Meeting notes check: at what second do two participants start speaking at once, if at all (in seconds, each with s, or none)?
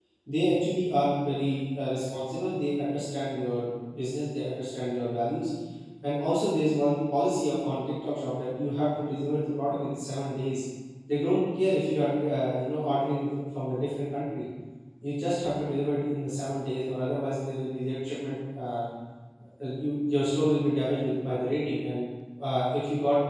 none